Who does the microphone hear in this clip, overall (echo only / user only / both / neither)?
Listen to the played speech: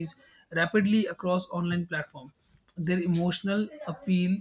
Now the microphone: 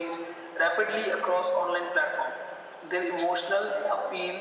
echo only